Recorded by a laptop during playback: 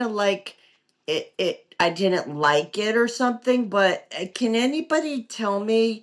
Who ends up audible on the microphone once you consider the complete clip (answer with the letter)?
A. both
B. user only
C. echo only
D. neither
B